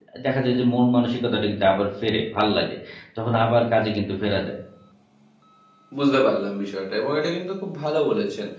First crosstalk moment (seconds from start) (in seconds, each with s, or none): none